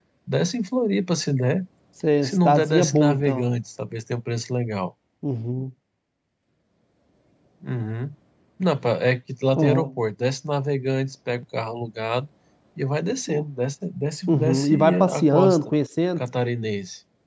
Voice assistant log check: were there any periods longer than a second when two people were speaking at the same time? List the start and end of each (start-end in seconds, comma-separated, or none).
2.2-3.5, 14.3-15.6